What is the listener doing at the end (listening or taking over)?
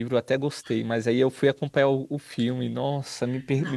listening